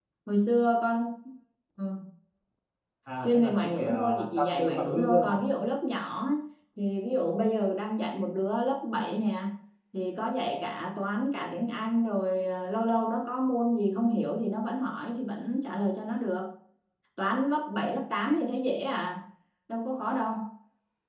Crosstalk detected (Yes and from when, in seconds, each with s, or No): Yes, from 3.2 s